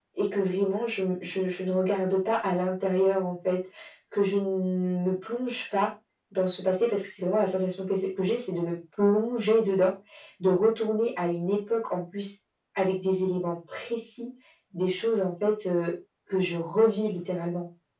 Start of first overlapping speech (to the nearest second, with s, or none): none